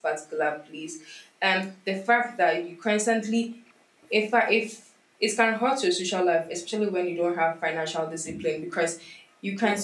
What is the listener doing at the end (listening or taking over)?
listening